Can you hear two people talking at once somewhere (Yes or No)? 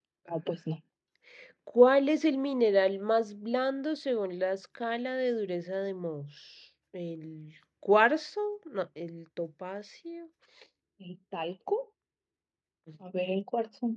No